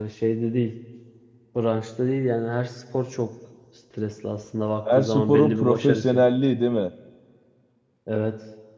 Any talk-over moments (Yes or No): Yes